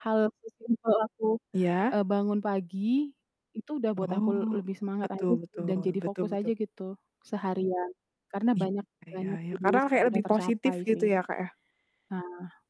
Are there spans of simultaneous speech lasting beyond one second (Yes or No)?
Yes